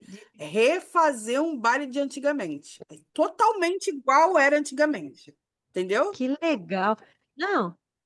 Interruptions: none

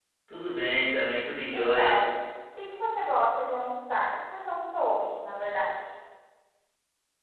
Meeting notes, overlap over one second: none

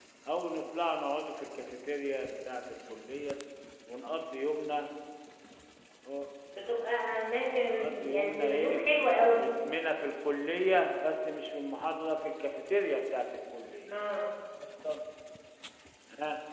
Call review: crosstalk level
present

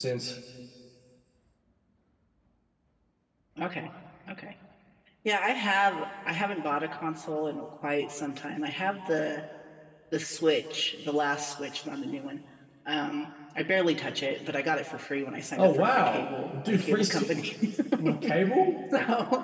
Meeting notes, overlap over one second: present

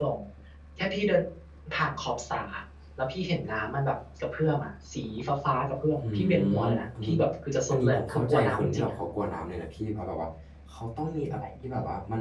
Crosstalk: present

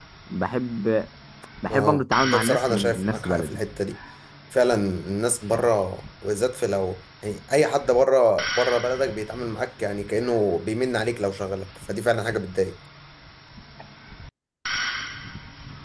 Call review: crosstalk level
present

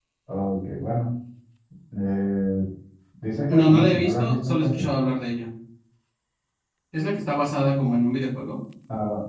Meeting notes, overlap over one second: present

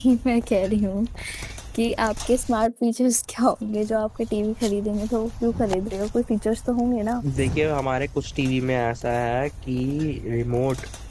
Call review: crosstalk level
none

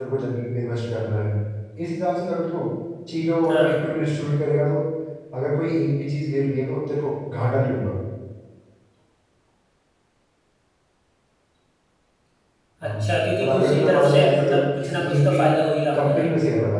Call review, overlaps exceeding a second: present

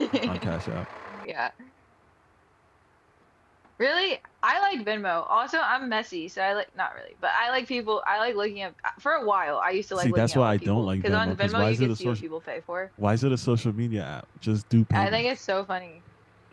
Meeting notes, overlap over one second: present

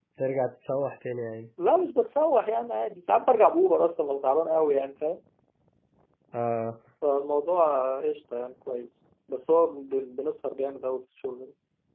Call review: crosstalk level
none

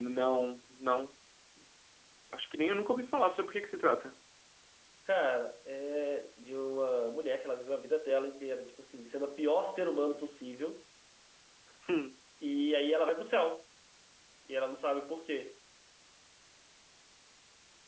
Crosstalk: none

